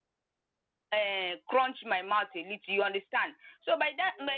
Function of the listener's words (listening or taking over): listening